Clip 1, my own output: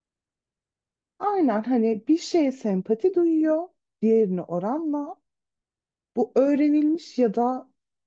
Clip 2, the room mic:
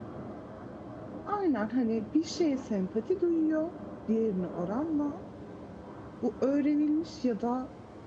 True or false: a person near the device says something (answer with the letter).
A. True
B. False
B